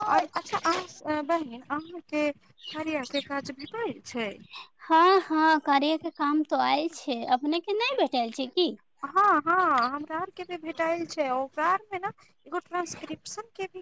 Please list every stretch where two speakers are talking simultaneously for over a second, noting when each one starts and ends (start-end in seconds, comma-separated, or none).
none